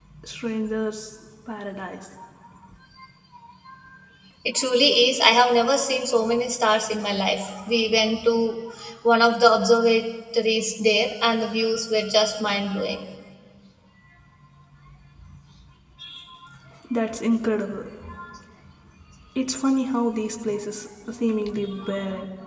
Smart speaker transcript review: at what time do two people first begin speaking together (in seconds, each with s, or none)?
none